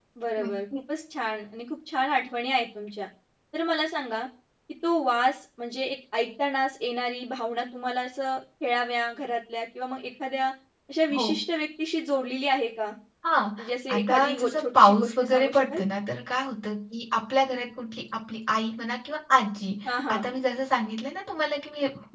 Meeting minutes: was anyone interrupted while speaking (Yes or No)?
Yes